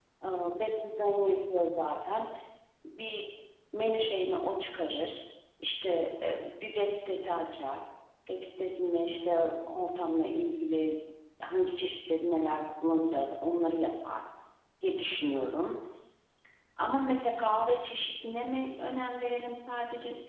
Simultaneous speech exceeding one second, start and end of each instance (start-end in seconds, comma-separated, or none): none